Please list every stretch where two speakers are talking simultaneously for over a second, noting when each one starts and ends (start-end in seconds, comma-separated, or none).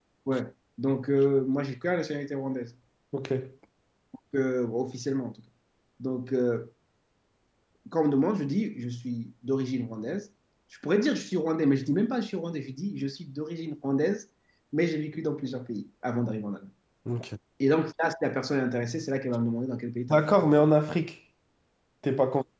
none